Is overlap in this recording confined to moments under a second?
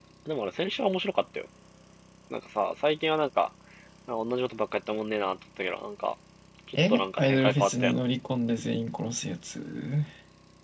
No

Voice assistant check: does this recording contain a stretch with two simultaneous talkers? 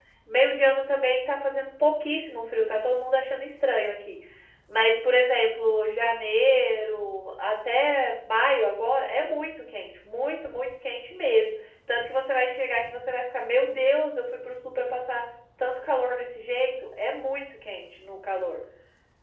No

